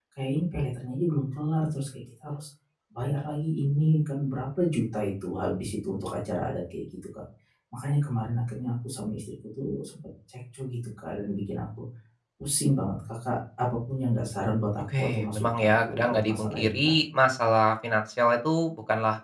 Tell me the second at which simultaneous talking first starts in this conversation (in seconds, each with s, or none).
14.8 s